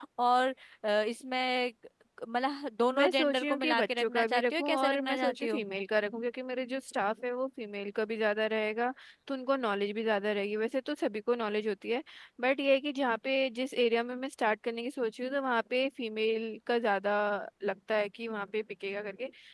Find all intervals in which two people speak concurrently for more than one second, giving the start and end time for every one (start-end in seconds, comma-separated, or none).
3.0-5.6